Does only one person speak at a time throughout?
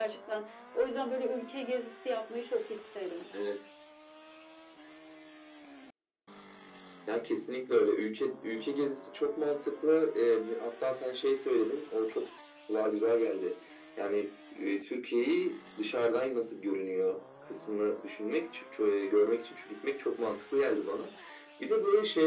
Yes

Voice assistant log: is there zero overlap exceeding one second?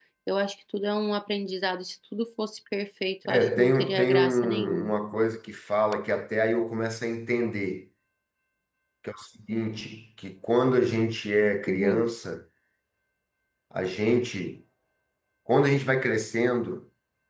No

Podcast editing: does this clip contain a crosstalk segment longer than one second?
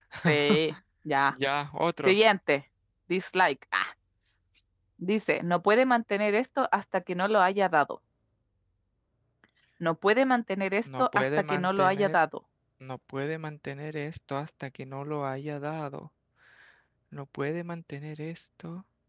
Yes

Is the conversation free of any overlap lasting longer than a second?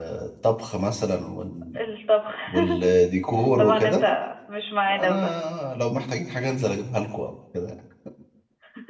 Yes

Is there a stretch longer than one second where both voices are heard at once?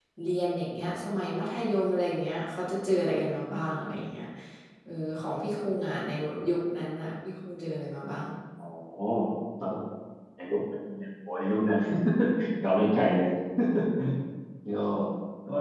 No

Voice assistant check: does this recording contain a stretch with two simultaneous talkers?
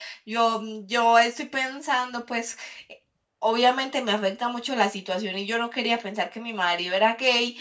No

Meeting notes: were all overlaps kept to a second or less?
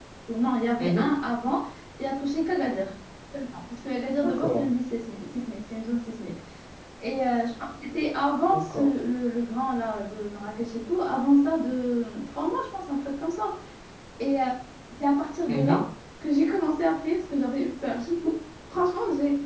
Yes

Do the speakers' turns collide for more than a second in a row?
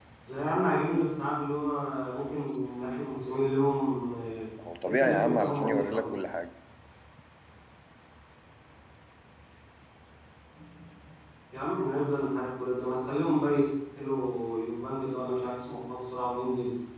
Yes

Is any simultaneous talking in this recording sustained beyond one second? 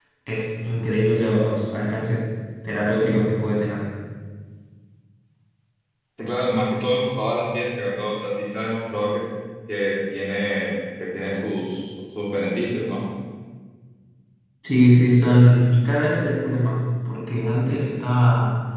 No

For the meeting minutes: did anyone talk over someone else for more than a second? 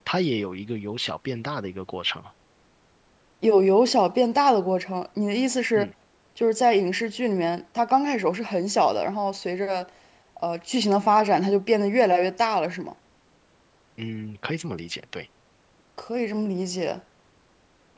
No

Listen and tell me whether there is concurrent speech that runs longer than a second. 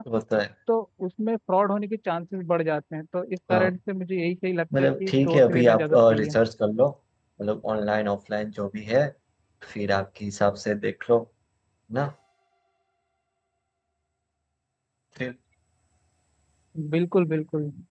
Yes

